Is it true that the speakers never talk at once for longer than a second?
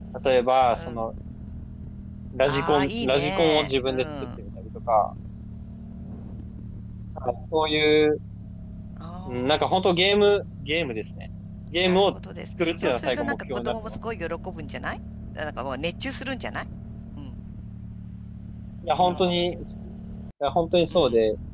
No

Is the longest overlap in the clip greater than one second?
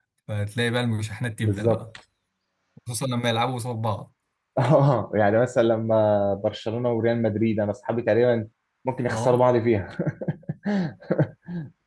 No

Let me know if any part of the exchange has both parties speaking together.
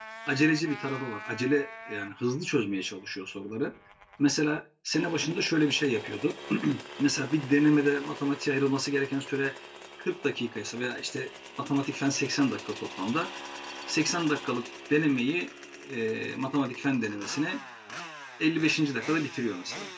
No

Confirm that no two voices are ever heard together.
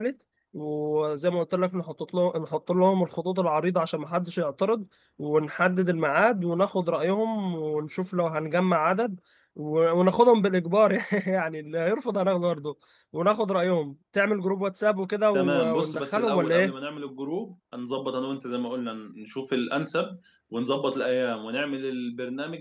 No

